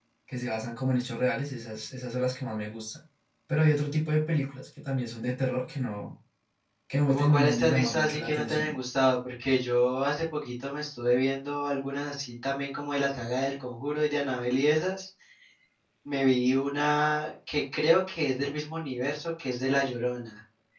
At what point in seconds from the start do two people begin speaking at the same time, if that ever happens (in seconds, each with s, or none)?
7.1 s